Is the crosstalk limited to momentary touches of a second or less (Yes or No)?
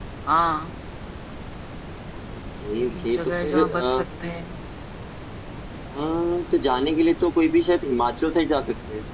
No